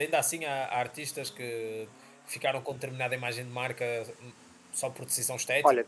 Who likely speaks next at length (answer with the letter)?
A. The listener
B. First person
A